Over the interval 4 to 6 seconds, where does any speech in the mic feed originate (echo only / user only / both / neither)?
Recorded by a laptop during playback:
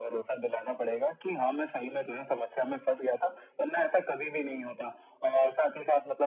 echo only